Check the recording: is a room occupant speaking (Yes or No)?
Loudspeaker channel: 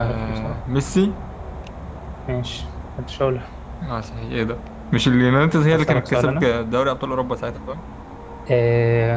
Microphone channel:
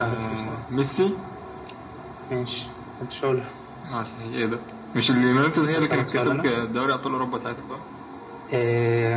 No